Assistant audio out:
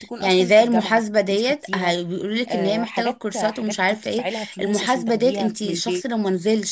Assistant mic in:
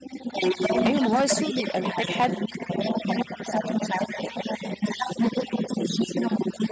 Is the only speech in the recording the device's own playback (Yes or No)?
No